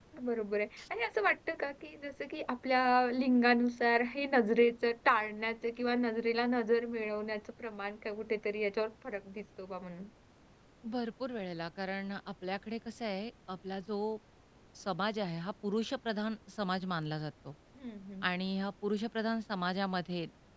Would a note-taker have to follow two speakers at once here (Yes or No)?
No